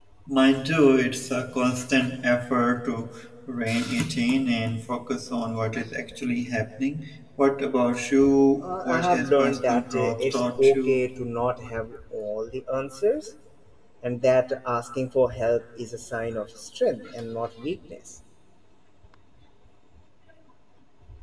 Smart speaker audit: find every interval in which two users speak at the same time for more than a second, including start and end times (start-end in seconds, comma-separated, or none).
8.6-11.0